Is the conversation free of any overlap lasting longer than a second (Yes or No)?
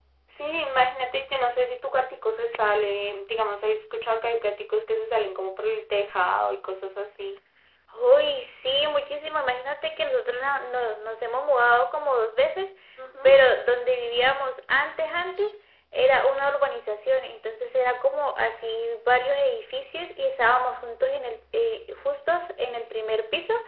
Yes